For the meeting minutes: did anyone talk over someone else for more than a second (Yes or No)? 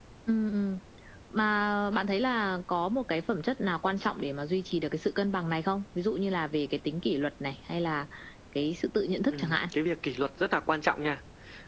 No